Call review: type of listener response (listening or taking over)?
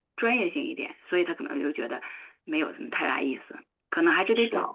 listening